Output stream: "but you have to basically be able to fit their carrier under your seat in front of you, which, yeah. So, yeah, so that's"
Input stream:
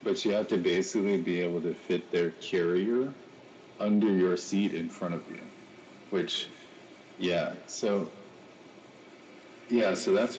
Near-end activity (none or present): none